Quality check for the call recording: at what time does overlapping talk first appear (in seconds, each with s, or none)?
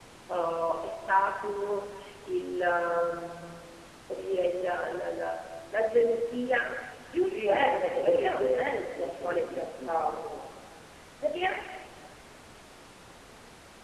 7.2 s